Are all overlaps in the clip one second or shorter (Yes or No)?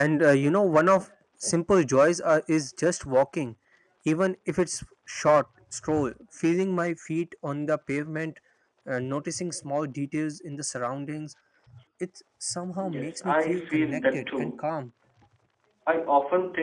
No